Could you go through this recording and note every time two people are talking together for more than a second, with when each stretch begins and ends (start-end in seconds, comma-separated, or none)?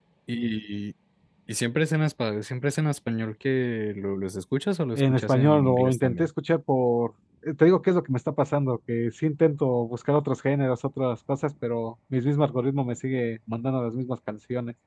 5.0-6.3